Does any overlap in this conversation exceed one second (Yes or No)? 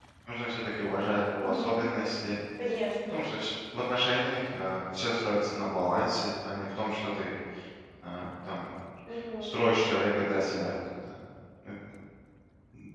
No